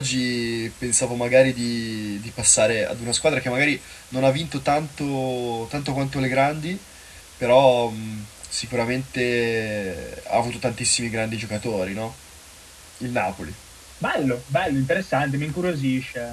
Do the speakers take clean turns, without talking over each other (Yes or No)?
Yes